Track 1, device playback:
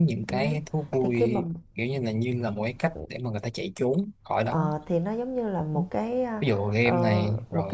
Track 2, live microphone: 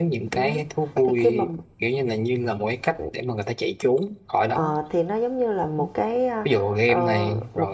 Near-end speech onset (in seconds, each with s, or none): none